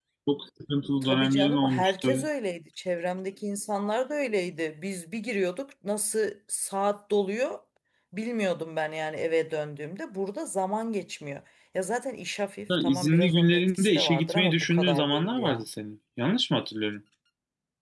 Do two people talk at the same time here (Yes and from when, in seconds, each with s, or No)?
Yes, from 1.0 s